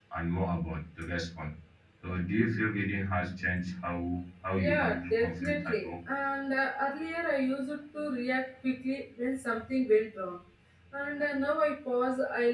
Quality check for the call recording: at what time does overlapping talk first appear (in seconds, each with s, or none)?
4.6 s